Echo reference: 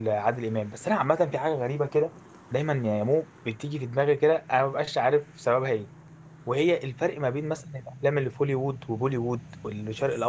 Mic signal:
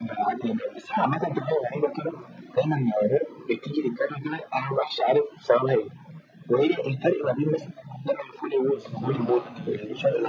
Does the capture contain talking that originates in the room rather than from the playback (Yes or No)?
Yes